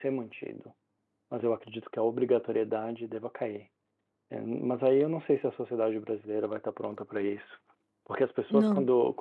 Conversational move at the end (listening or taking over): listening